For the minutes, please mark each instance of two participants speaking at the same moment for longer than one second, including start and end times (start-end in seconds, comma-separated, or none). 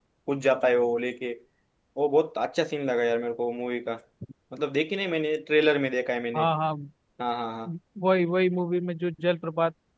none